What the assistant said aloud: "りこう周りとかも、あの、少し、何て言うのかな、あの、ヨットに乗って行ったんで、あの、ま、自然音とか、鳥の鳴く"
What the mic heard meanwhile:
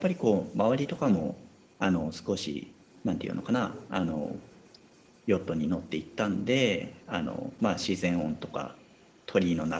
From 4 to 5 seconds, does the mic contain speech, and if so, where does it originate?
echo only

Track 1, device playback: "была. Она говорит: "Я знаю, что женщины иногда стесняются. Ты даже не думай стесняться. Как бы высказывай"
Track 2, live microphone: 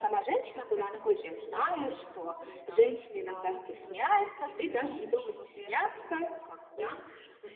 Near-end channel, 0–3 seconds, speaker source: both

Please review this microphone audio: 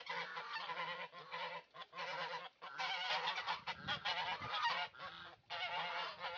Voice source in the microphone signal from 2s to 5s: neither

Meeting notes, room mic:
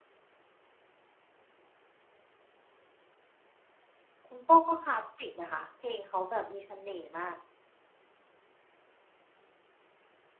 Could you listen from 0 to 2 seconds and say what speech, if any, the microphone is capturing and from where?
neither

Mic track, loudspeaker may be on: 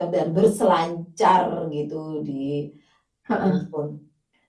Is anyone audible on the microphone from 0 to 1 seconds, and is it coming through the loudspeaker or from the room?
echo only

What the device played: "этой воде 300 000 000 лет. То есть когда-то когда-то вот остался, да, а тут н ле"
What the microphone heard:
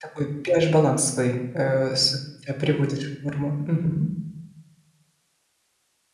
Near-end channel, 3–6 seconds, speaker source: user only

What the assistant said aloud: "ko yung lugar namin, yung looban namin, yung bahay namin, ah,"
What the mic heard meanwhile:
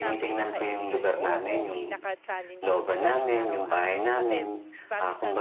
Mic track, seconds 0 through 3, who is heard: both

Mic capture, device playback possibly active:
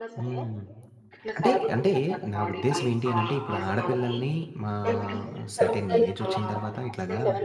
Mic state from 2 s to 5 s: both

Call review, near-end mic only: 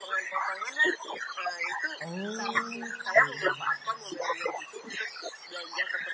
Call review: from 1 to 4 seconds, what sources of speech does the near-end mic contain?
both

